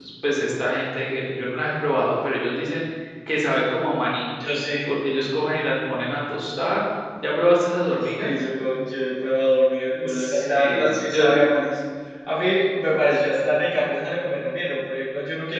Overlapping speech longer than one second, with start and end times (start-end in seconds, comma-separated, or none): 10.0-11.4